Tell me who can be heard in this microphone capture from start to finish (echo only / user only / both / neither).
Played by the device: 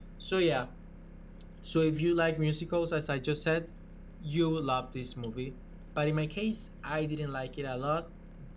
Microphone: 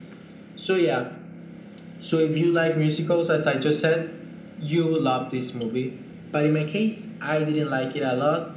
echo only